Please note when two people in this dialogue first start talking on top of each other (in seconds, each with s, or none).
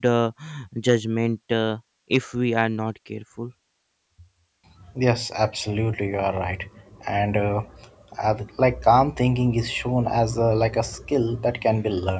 none